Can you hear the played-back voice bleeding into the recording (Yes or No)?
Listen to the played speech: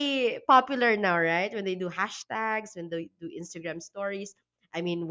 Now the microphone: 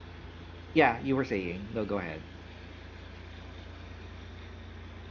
No